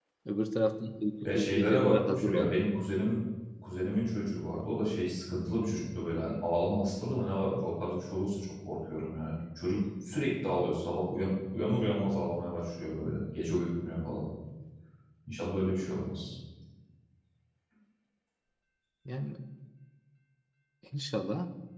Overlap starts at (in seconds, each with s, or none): 1.2 s